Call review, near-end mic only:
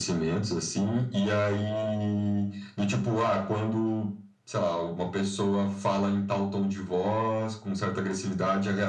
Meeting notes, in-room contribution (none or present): none